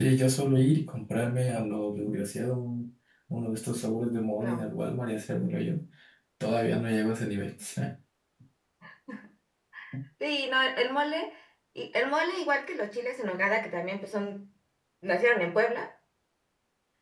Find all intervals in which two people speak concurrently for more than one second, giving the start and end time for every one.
none

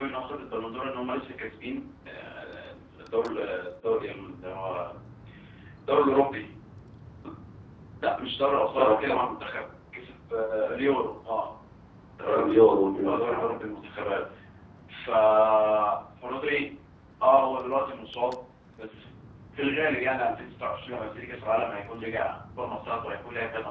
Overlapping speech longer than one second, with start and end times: none

